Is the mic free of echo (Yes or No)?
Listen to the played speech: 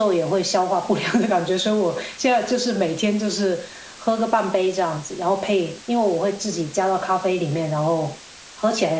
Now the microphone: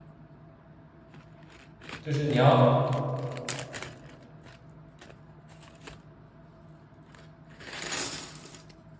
Yes